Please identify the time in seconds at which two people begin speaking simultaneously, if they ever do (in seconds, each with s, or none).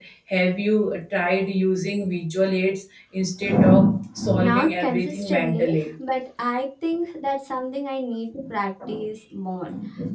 4.3 s